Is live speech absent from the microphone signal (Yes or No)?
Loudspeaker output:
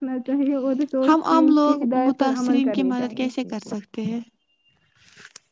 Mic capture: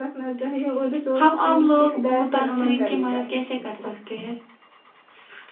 Yes